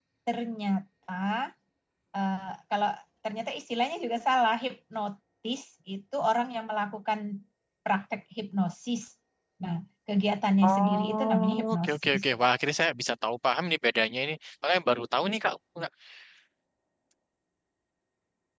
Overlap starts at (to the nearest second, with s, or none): 11 s